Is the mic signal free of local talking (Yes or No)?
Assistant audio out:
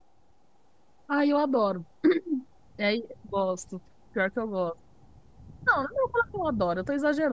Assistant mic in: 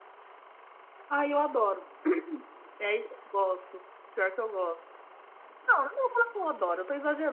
Yes